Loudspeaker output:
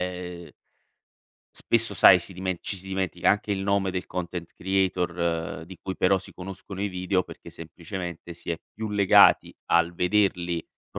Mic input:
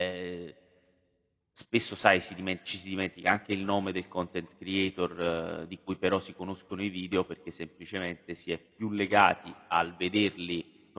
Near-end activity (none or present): none